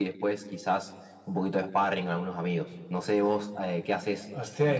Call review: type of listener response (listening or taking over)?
taking over